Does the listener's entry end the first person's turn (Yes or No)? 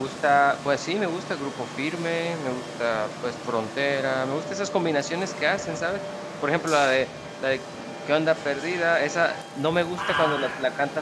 No